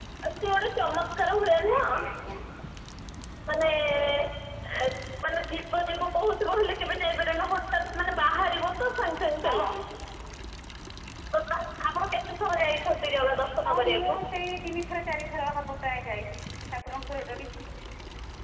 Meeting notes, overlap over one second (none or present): none